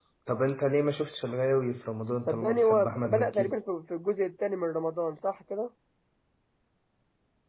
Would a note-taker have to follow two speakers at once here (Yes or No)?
Yes